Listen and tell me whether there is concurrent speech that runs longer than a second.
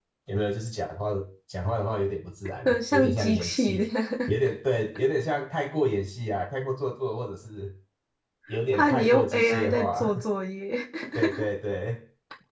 Yes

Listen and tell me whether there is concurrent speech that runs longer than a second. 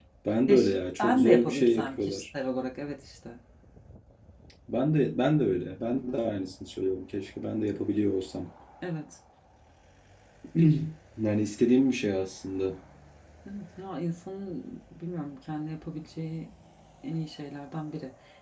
Yes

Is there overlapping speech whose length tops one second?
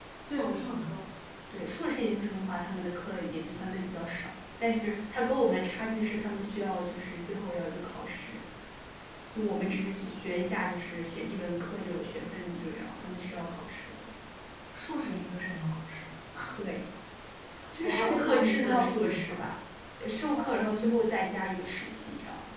Yes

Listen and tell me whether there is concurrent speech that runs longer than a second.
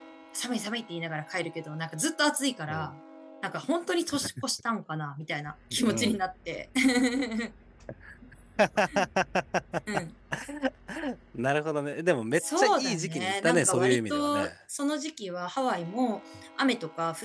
Yes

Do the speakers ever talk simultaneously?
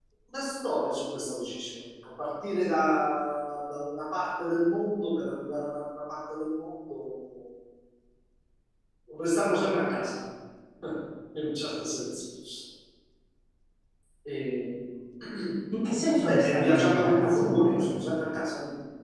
Yes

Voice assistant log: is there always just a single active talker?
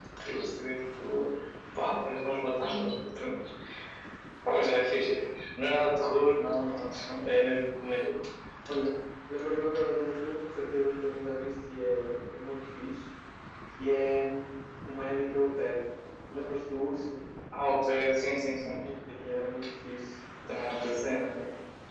Yes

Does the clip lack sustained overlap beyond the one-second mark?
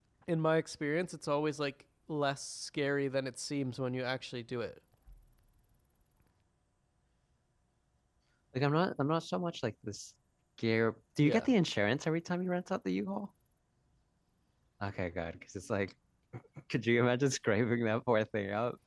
Yes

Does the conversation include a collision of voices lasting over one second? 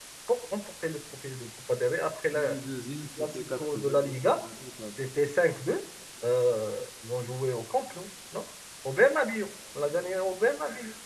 Yes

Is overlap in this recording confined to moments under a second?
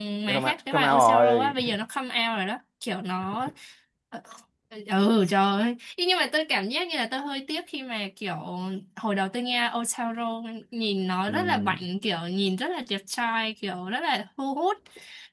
No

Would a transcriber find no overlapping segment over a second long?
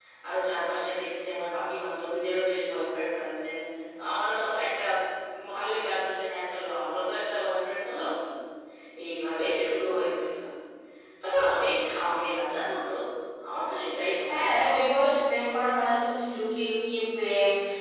Yes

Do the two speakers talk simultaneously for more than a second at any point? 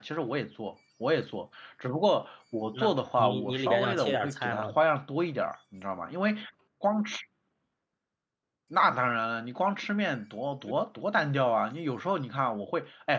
Yes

